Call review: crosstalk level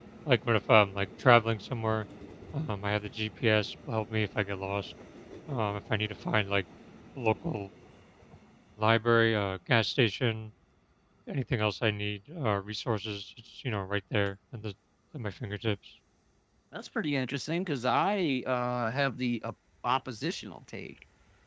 none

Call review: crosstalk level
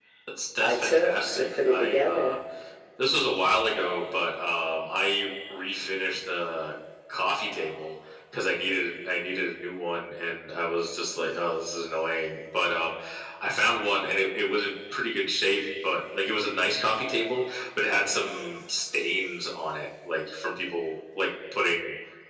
present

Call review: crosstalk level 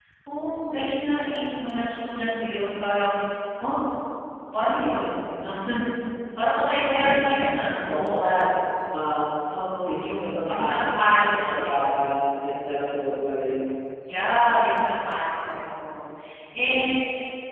present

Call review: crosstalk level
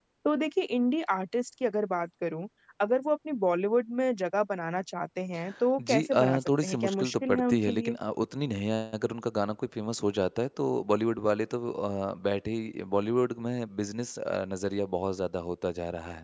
present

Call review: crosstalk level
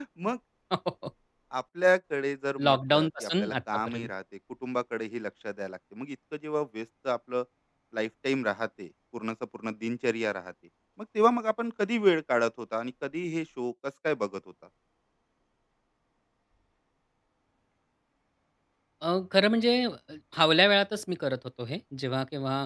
present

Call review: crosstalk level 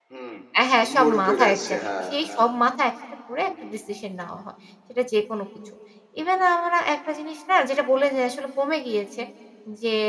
present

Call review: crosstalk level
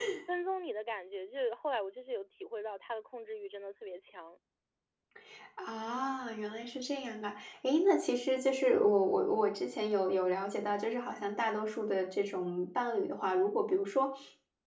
none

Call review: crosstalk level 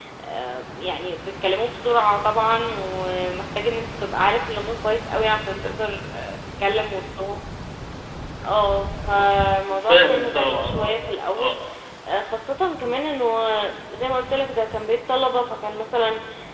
present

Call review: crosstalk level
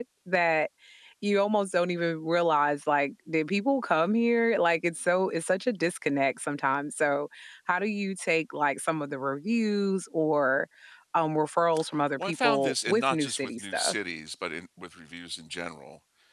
present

